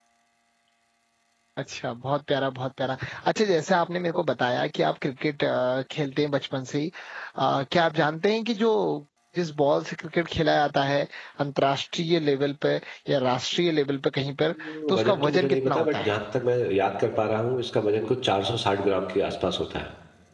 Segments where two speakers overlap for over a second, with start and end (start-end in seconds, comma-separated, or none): 14.6-16.1